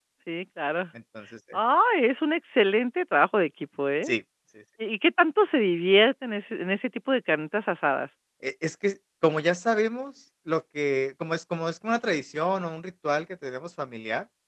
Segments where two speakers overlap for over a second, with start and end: none

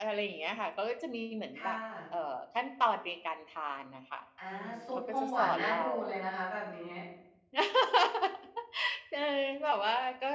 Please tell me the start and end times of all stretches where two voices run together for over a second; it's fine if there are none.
4.5-5.9

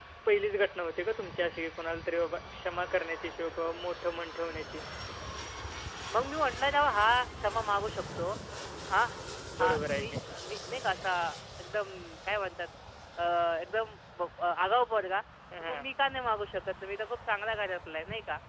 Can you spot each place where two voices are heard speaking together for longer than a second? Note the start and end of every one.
none

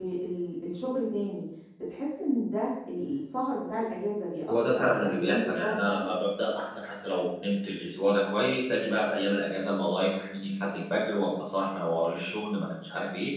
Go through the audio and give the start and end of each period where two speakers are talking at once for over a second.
4.5-6.1

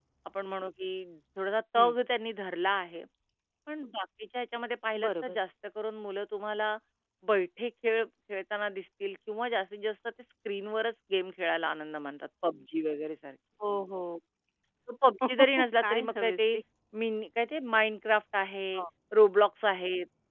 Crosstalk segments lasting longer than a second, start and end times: 15.3-16.6

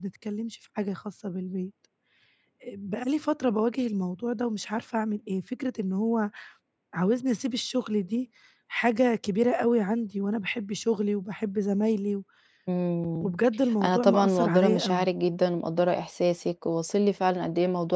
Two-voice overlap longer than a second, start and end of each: 13.8-15.1

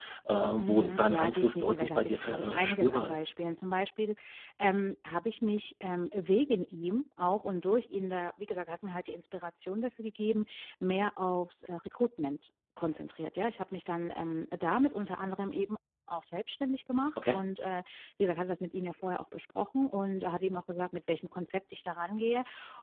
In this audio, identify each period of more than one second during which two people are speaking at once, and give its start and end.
0.6-3.3

